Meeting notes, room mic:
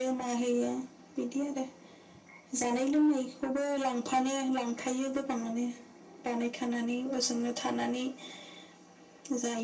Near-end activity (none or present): none